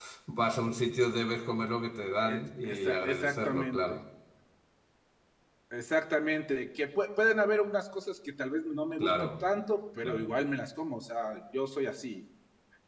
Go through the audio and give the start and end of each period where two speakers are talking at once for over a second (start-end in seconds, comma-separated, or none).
2.2-4.0